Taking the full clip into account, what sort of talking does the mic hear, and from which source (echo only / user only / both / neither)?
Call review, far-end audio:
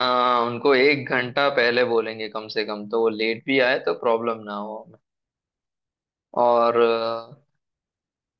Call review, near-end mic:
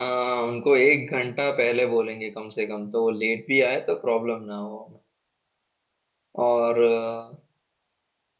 echo only